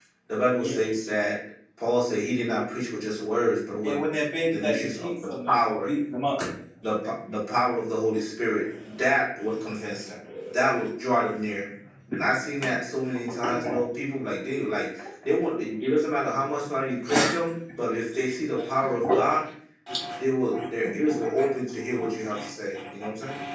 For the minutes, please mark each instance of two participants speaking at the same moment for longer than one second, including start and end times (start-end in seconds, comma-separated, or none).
4.5-5.8